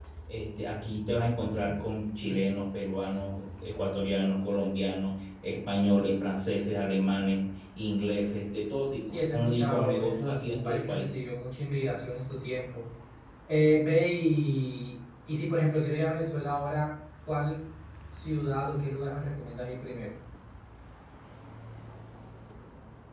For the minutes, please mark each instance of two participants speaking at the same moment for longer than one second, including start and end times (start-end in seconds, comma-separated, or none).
9.0-11.1